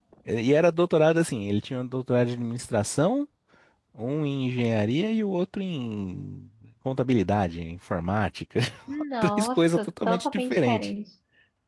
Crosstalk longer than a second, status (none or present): present